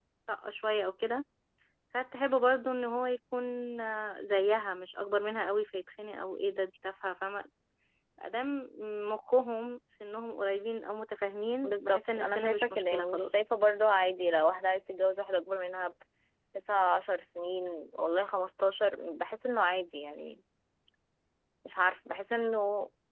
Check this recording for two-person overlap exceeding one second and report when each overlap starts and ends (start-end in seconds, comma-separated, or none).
11.6-13.3